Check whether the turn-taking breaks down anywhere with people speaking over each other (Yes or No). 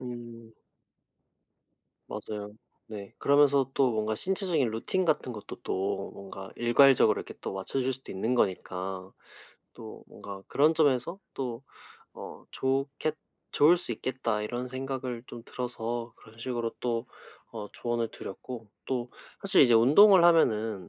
No